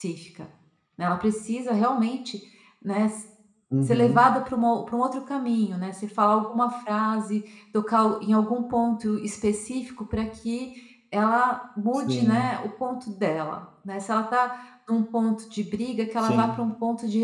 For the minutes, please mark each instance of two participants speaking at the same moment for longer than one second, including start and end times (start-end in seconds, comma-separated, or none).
none